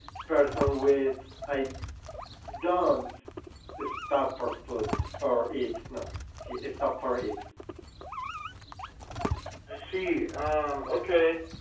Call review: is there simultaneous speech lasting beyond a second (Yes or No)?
No